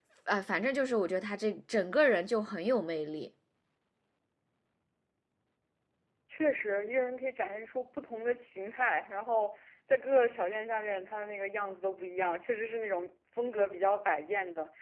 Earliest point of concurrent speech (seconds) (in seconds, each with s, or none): none